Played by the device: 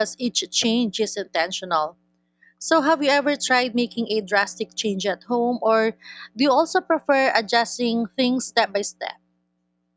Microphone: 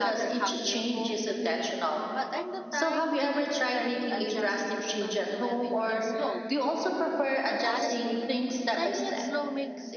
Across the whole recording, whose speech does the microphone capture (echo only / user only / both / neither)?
both